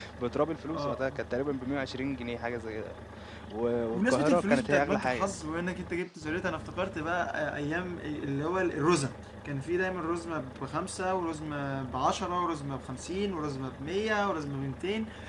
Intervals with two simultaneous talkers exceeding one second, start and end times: 3.9-5.3

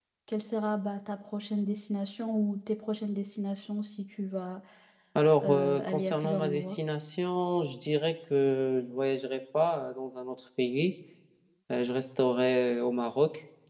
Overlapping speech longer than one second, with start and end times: 5.4-6.8

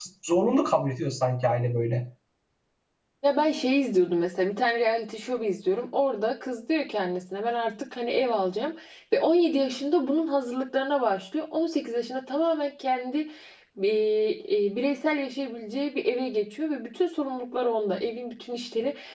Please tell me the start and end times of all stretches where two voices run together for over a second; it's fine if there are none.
none

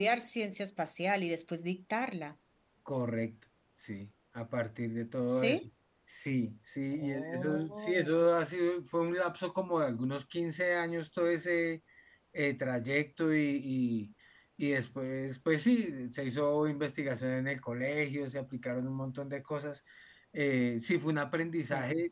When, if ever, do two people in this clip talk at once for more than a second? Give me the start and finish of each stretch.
6.9-8.2

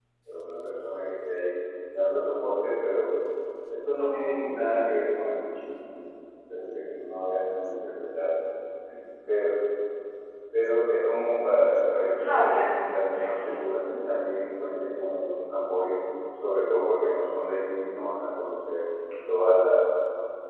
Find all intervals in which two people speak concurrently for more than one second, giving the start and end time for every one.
12.2-13.4

